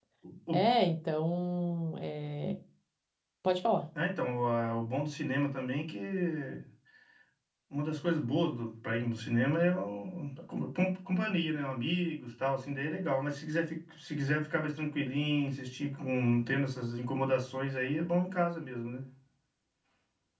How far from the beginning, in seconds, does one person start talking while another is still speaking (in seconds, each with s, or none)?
none